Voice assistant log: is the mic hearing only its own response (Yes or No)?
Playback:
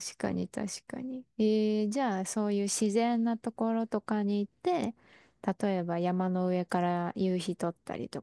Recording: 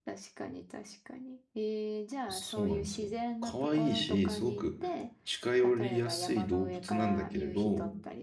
No